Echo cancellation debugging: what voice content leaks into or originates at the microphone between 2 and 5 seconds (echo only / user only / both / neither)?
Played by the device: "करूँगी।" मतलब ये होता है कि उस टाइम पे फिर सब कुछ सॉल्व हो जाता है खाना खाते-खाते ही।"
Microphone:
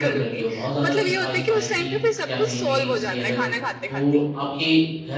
both